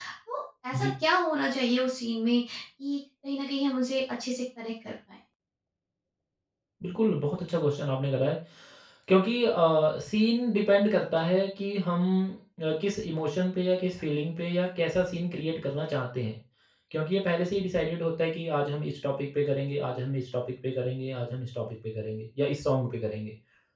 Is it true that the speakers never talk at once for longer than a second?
Yes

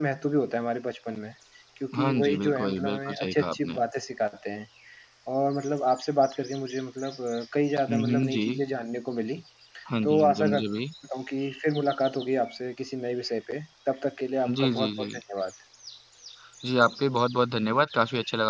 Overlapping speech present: Yes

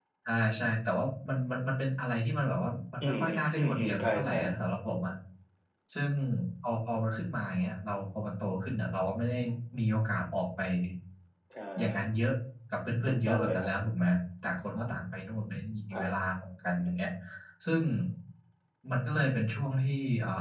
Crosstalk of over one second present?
Yes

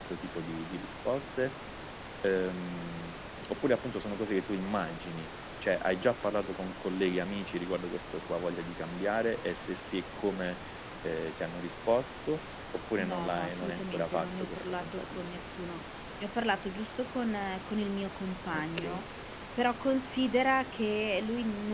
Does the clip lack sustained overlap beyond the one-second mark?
No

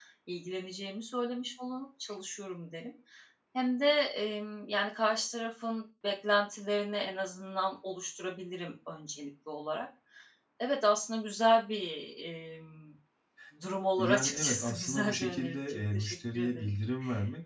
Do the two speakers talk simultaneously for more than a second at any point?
Yes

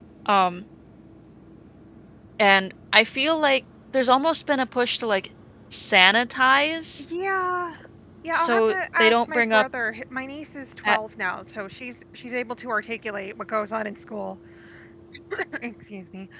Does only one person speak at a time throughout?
No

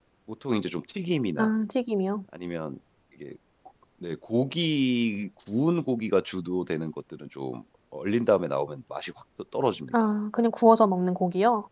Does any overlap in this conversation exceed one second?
No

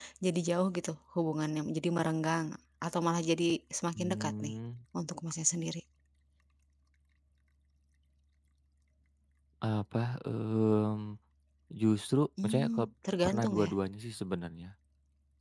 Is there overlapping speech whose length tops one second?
No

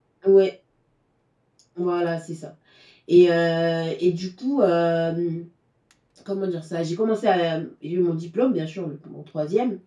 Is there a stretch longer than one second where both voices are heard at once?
No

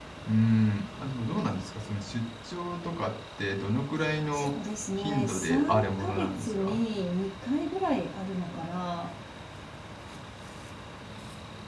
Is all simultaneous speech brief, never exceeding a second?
No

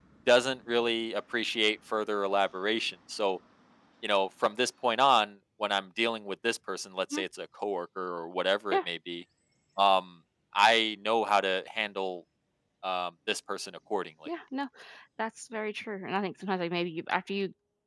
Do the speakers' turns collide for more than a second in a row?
No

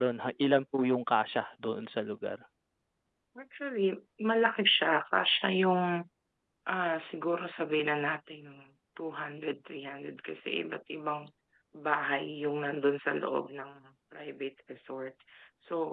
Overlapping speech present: No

